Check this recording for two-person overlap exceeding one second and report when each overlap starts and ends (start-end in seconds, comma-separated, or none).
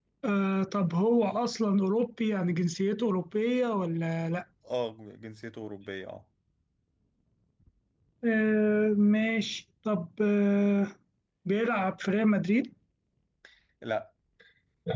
none